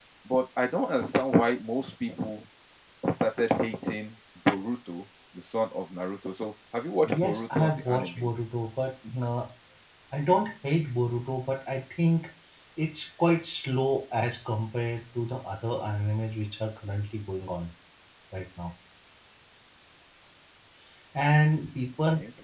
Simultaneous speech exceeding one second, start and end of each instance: 7.0-8.3

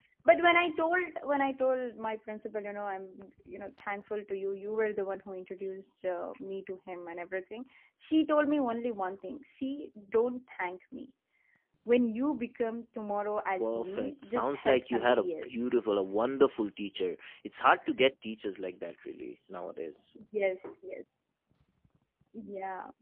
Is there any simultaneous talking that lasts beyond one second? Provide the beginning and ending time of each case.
13.6-15.8

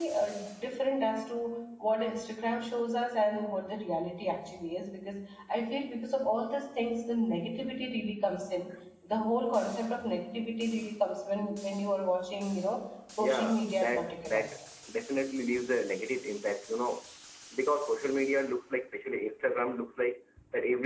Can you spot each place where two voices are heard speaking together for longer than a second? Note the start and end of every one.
13.2-14.5

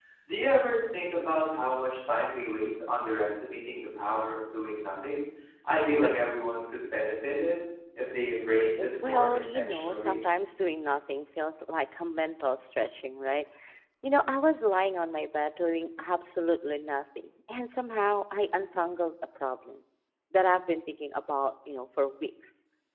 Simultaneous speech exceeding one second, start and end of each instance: 8.8-10.2

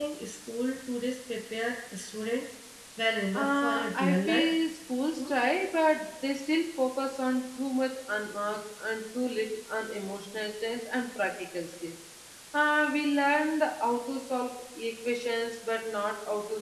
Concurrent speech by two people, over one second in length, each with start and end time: 3.3-4.5

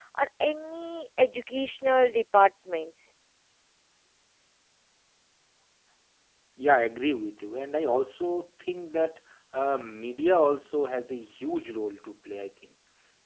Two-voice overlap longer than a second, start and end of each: none

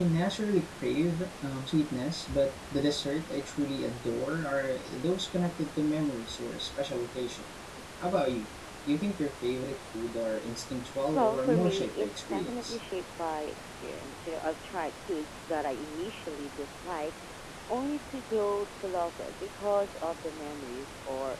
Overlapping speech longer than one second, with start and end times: 11.1-12.8

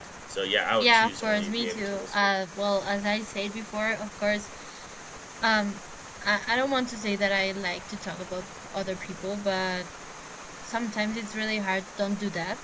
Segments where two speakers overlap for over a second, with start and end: 0.8-2.3

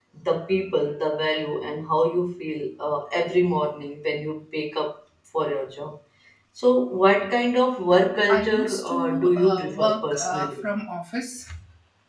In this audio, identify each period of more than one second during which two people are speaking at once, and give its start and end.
8.3-10.6

